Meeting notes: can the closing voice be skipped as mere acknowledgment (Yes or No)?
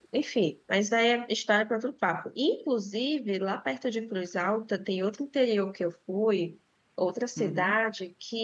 Yes